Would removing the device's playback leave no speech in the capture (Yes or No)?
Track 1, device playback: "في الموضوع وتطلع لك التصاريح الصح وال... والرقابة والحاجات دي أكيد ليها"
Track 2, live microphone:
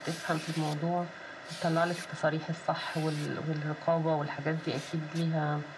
Yes